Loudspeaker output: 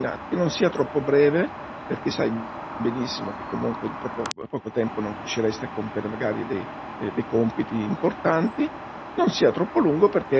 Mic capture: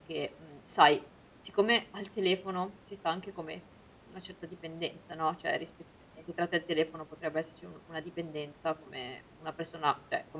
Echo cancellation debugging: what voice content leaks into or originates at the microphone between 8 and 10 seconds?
user only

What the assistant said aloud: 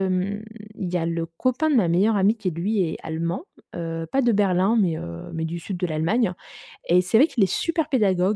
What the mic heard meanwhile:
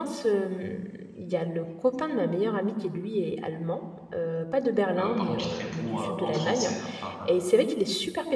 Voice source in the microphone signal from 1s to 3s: echo only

